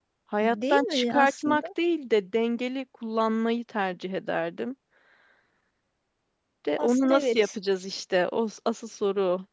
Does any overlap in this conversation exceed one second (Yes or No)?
Yes